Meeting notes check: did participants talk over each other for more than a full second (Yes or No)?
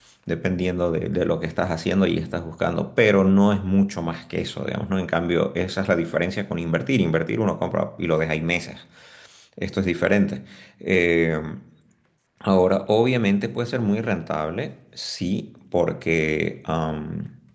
No